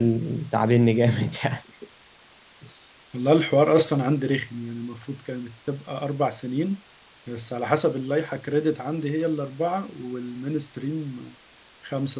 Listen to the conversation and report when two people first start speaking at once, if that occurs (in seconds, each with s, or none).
none